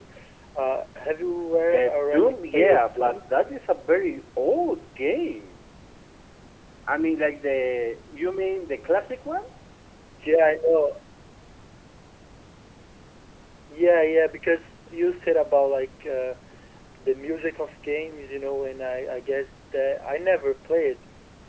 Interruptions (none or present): present